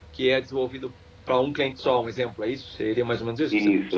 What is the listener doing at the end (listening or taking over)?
taking over